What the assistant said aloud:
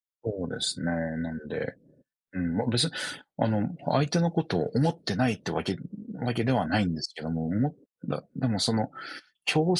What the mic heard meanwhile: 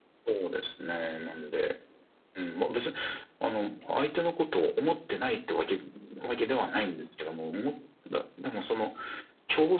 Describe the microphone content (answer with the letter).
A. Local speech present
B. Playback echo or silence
B